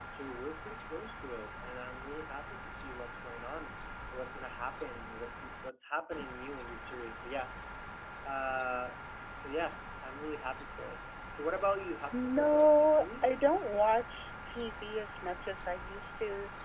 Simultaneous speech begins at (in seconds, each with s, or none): 12.1 s